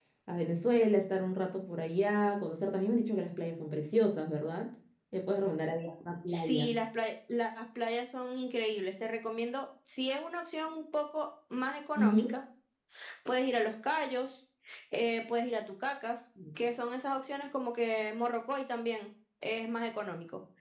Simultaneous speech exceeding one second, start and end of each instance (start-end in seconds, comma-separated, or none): none